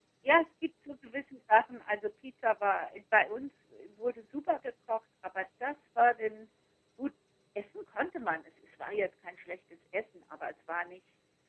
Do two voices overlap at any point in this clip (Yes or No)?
No